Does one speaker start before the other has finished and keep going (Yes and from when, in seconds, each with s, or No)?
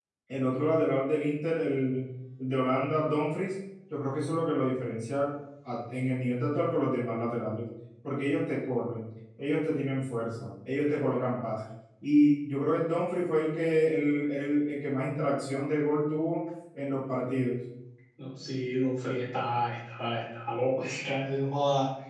No